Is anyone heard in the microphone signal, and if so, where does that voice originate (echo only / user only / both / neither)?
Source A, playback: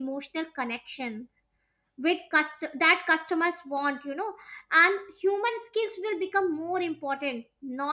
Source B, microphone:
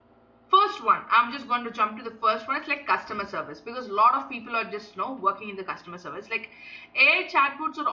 user only